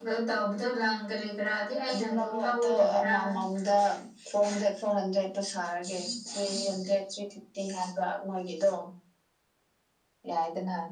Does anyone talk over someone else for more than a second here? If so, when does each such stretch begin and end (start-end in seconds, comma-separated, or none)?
1.9-3.1